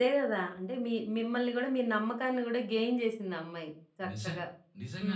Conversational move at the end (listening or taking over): taking over